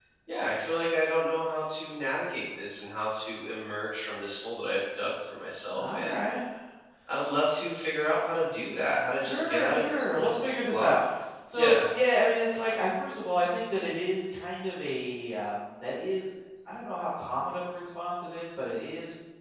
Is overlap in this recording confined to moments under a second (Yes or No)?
No